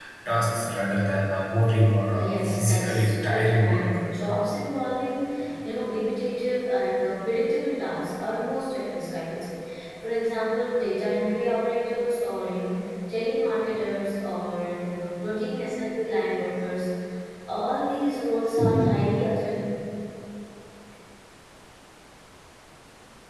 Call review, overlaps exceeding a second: present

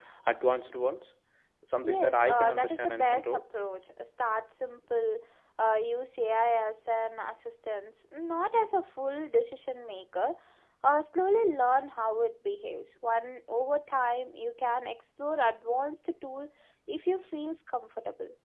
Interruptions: present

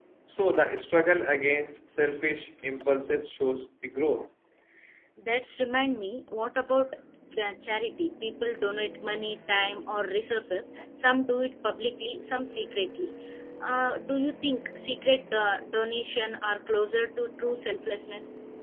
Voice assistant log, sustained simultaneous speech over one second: none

